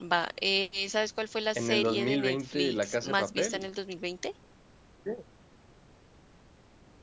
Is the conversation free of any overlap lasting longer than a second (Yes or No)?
No